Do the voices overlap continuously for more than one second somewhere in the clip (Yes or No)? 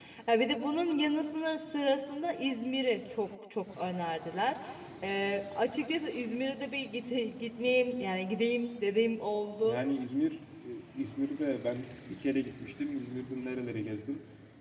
No